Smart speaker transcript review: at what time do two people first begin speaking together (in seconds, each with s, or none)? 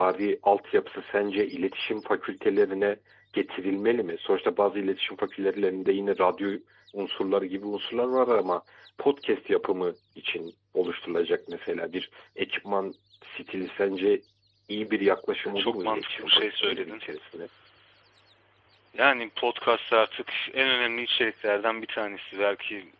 15.6 s